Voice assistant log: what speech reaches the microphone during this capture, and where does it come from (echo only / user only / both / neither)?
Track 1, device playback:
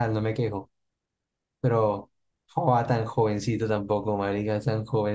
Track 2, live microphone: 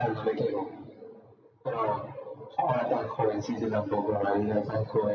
echo only